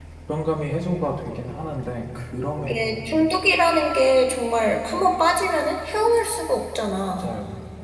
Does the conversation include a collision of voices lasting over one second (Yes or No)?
No